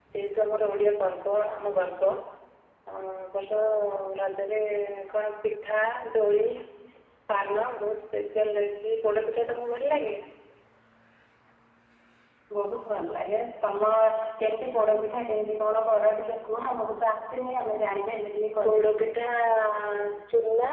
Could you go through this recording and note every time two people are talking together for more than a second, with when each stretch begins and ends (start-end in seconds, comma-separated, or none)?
none